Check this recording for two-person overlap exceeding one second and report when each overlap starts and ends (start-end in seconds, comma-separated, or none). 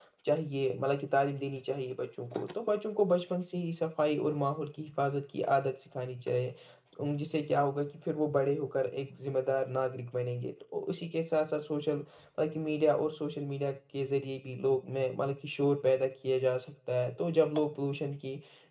none